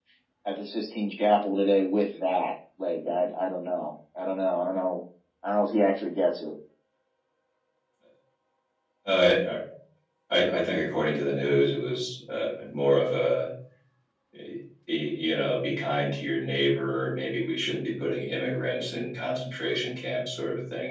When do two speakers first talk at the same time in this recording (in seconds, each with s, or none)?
none